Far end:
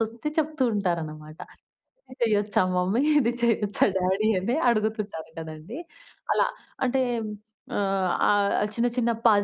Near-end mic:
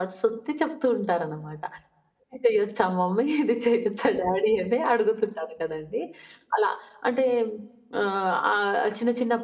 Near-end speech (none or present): none